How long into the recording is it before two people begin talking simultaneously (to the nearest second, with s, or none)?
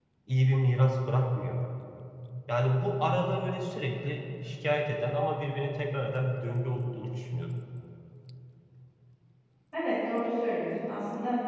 none